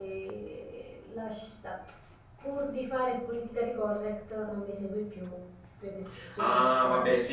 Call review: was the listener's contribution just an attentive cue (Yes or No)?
No